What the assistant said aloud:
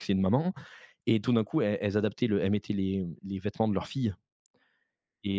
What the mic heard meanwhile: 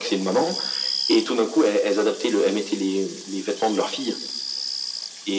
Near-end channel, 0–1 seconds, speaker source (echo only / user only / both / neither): echo only